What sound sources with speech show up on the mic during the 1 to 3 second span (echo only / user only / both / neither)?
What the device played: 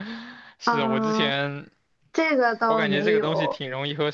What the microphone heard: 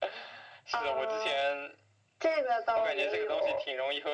echo only